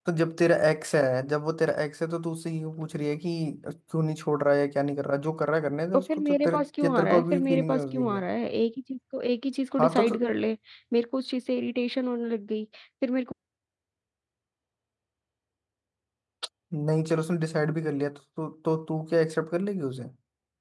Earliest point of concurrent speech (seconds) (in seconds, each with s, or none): 5.9 s